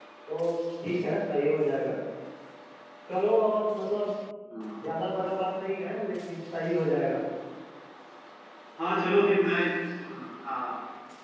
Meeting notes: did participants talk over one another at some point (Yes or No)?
No